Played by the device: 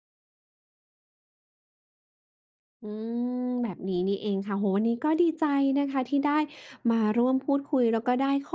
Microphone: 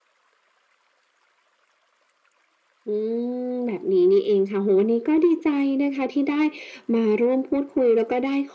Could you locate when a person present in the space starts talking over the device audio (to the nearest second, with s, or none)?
none